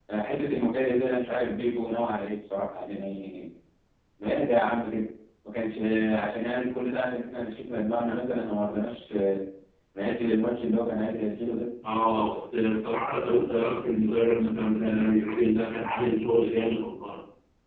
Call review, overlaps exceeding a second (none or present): none